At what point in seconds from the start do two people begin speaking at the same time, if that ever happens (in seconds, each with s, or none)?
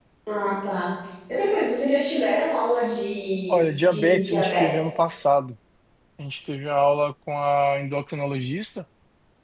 3.5 s